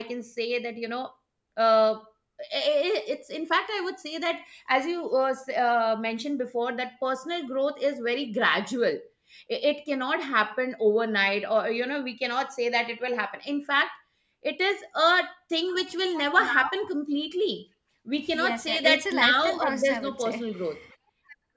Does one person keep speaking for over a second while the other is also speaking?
Yes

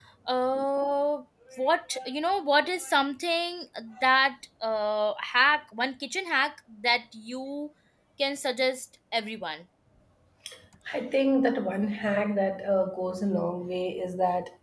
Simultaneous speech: No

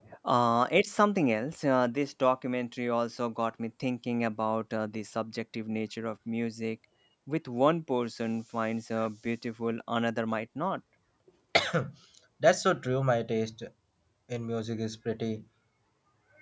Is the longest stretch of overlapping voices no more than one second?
Yes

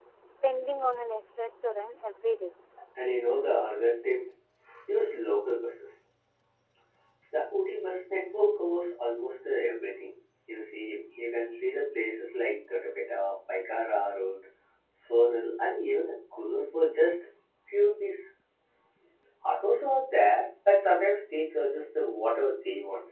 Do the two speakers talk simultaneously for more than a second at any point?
No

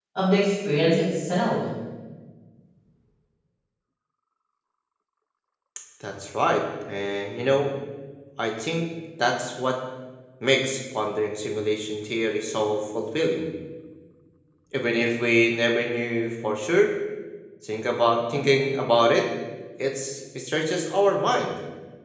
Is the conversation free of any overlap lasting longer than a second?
Yes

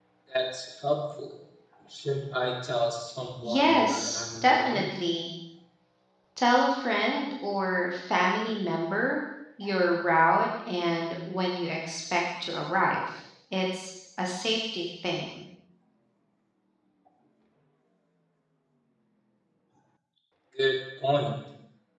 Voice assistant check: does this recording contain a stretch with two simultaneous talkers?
Yes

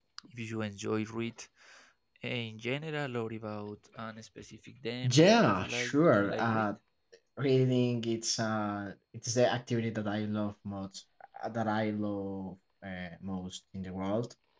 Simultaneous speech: Yes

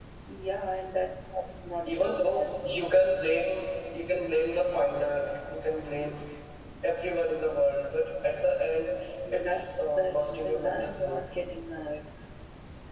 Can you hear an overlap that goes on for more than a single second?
Yes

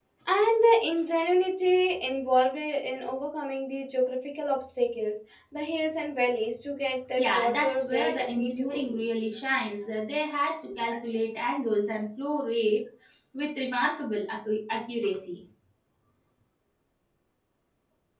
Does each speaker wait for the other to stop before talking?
No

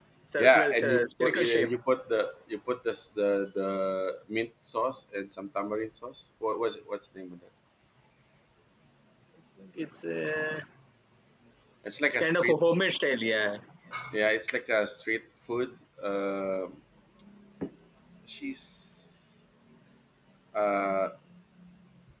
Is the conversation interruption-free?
No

